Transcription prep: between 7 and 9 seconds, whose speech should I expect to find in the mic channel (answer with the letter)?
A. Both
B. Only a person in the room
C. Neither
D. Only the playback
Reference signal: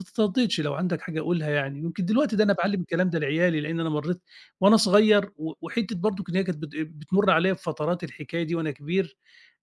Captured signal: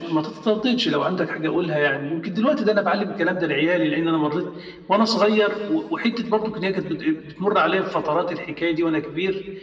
D